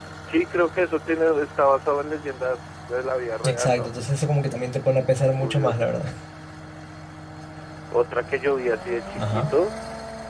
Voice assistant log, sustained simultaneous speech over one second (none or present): none